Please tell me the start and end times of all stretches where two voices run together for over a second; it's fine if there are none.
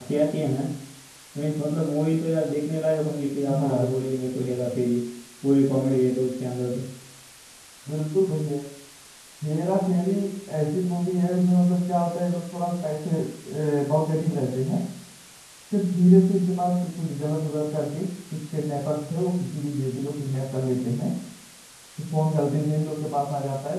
none

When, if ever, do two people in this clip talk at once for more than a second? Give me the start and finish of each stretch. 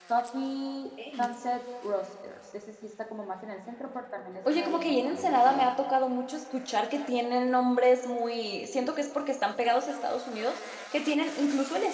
4.5-5.7

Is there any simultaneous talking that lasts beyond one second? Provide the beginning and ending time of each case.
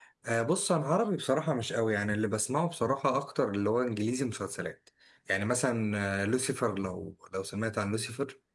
none

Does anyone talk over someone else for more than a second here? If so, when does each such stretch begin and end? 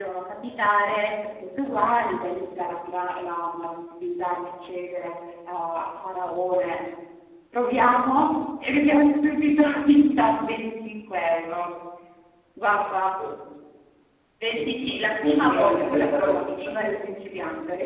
14.5-17.1

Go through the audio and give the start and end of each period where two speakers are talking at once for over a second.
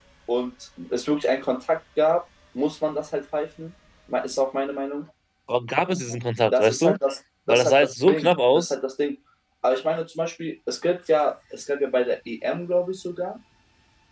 7.5-8.7

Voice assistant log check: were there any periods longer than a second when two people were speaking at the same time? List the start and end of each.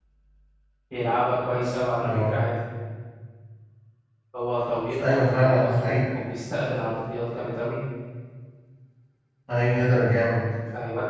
4.9-6.2

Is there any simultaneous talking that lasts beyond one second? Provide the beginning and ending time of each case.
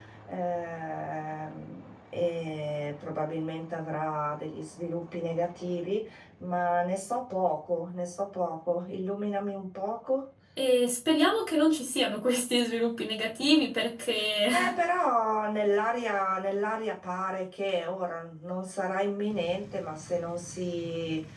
none

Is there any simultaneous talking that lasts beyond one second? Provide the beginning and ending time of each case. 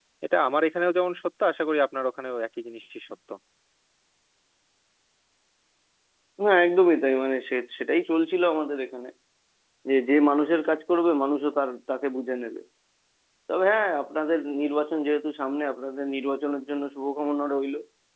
none

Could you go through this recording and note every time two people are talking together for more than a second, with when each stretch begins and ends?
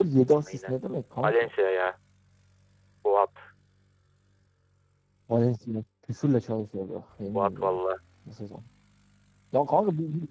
none

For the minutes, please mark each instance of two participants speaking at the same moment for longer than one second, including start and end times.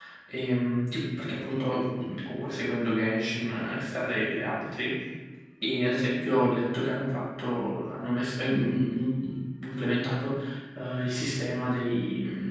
none

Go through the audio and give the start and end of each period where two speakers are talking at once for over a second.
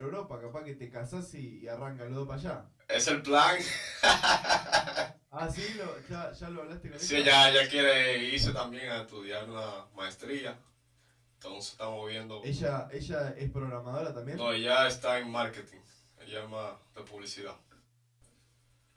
none

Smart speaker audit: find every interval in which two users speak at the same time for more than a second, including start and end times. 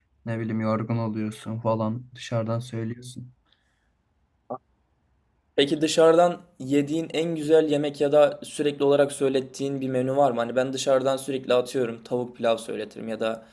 none

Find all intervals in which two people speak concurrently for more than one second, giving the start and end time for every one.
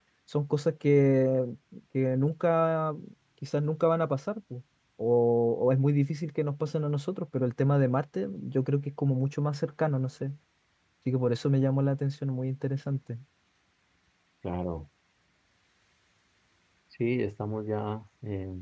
none

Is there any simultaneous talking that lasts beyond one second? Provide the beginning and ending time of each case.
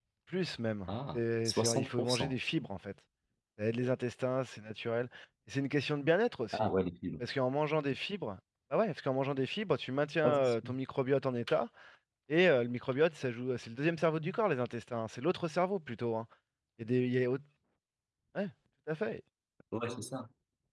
0.9-2.3

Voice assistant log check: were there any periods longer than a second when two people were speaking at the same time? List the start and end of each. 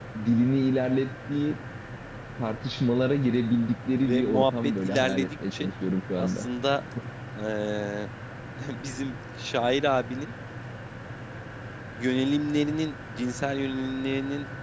4.0-5.7

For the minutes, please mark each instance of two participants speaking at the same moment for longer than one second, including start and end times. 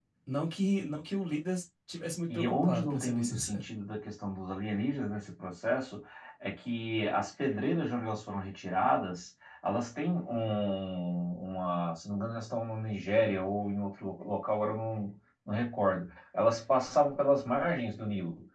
2.3-3.6

